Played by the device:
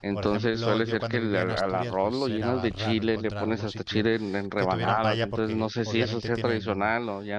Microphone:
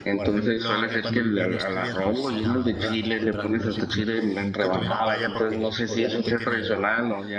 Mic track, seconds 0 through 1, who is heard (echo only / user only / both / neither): echo only